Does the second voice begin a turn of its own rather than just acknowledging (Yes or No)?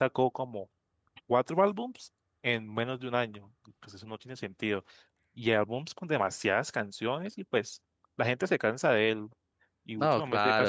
Yes